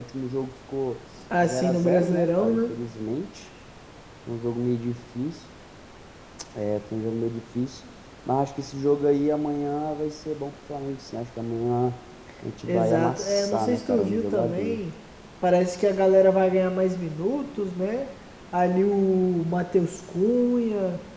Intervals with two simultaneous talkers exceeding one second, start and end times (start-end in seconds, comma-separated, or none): 1.4-2.7, 12.7-14.8